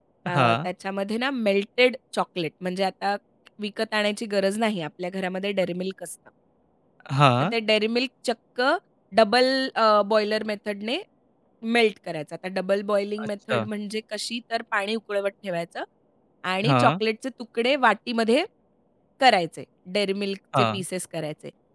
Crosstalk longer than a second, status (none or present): none